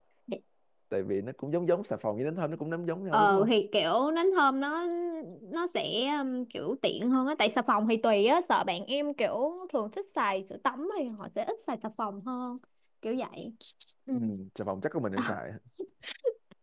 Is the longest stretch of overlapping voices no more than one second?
Yes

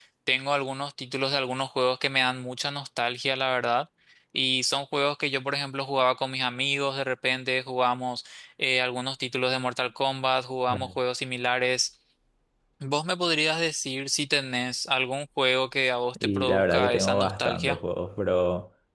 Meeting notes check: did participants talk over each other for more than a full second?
Yes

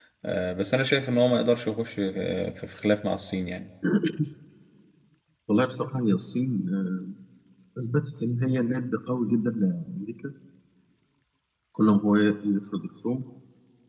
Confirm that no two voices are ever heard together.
Yes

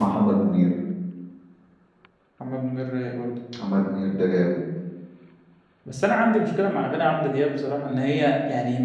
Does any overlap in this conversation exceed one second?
No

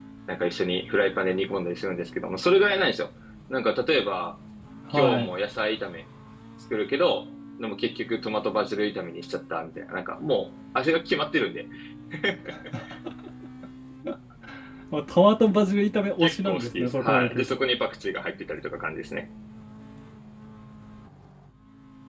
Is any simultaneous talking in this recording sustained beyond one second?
Yes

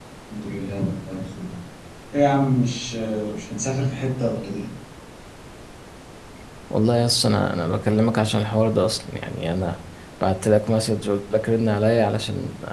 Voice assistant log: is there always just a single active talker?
Yes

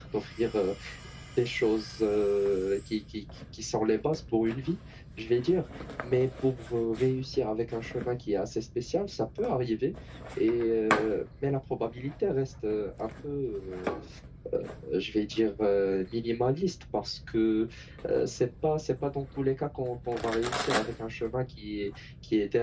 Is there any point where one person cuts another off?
No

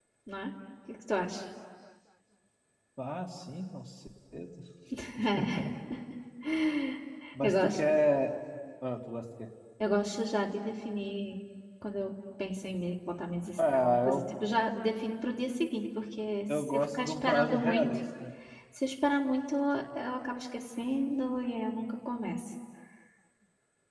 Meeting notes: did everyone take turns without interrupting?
No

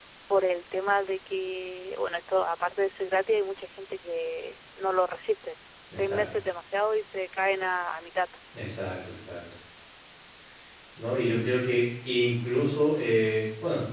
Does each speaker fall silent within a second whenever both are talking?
Yes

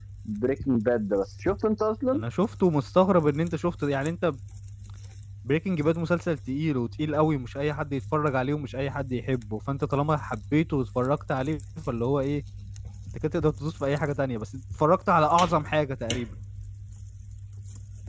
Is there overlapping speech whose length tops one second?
No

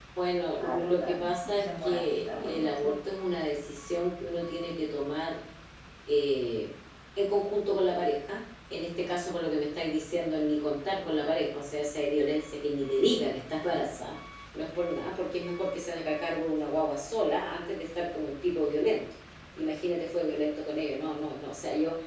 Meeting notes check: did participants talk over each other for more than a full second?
Yes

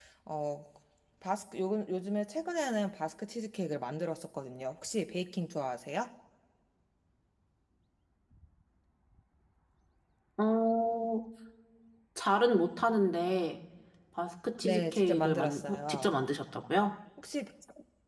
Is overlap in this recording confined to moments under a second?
No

